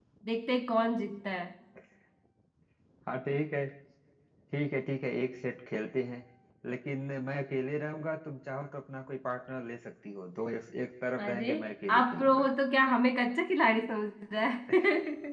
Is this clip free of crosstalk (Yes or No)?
No